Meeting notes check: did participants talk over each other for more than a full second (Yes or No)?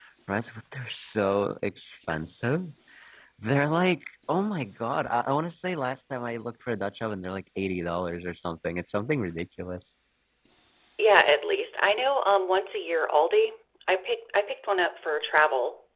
No